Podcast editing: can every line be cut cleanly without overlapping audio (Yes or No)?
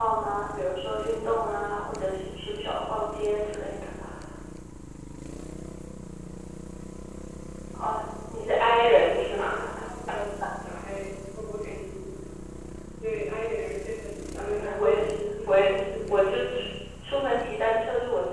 No